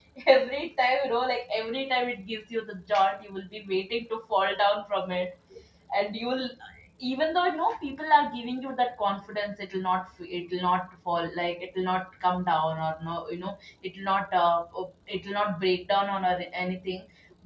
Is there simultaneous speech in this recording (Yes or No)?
No